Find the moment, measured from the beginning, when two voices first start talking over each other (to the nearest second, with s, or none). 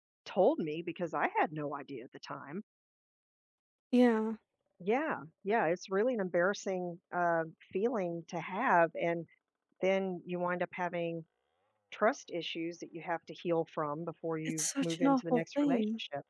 15 s